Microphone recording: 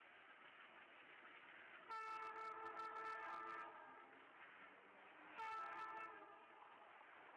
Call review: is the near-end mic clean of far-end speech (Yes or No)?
Yes